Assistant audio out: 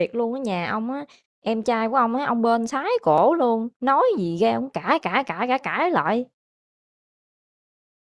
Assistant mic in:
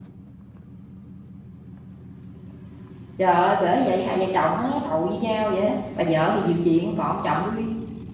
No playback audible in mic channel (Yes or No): Yes